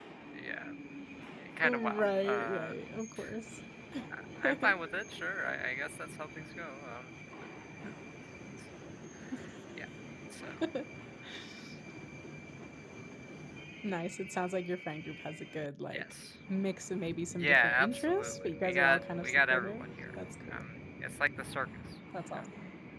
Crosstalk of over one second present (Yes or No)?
Yes